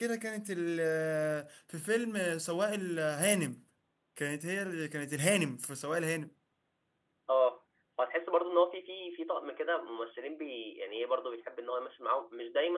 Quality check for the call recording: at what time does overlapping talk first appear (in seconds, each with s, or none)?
none